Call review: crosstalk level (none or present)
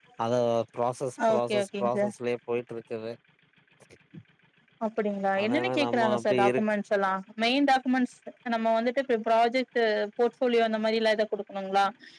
present